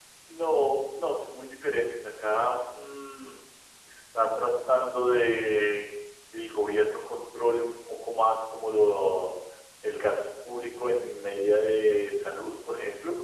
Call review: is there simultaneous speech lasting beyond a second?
No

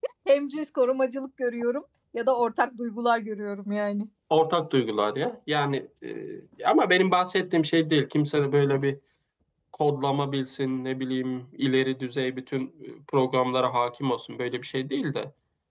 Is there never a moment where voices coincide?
Yes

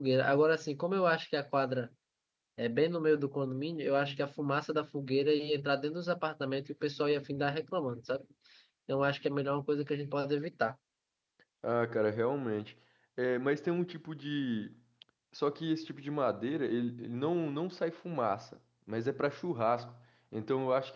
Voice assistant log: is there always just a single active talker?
Yes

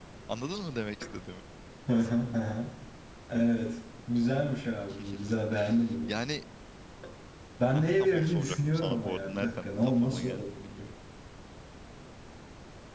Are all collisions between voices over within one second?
No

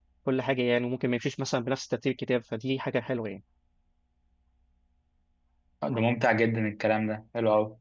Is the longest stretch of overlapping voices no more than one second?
Yes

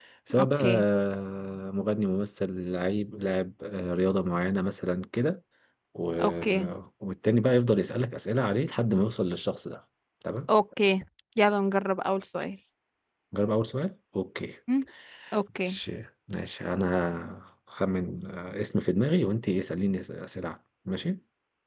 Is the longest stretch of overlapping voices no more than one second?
Yes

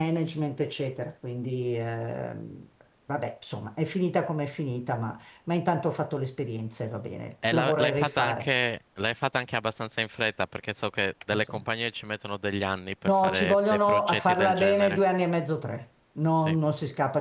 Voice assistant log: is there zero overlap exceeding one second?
No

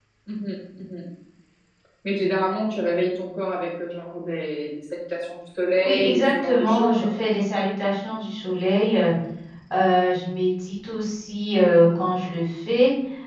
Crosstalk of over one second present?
Yes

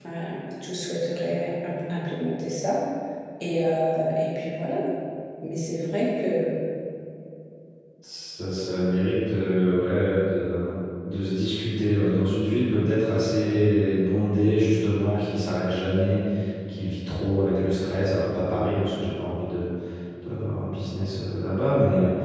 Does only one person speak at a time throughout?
Yes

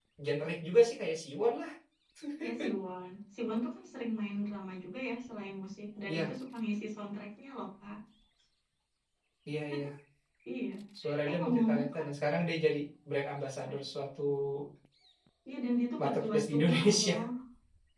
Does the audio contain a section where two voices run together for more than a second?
Yes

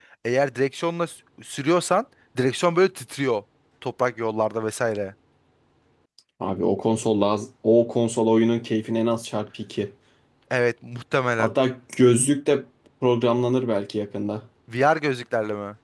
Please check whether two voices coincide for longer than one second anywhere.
No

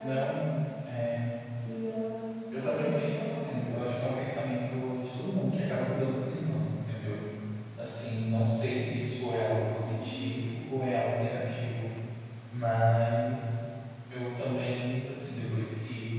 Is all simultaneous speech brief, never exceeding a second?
No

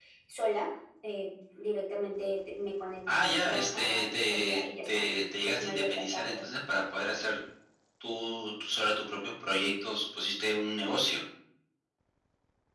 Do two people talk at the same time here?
Yes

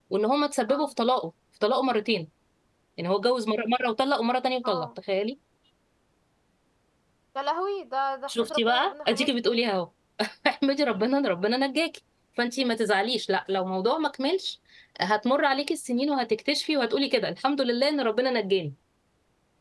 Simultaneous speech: Yes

